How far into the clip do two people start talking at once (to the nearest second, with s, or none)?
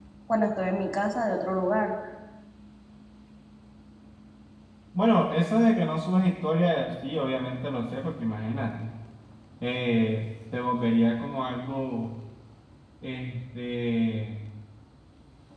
none